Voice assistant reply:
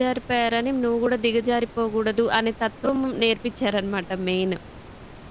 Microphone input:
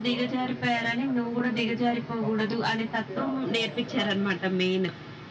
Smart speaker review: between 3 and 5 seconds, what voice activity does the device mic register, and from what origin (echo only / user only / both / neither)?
both